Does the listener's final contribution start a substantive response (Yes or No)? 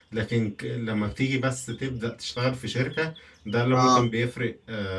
No